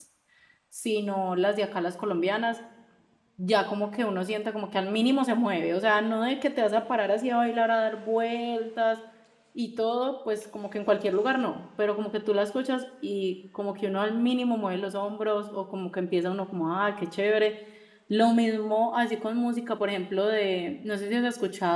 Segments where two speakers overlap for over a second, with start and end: none

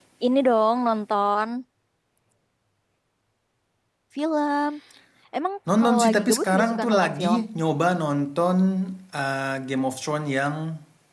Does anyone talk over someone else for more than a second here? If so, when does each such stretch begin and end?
5.8-7.4

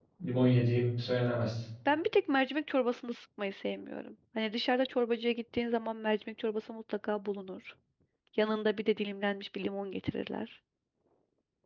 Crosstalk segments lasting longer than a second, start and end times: none

